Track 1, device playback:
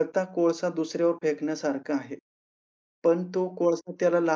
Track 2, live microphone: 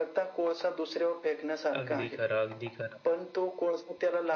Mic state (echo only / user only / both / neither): both